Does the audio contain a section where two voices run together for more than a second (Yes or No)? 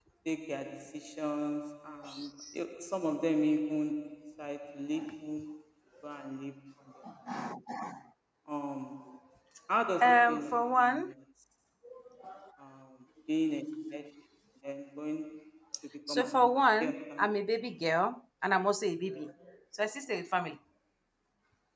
Yes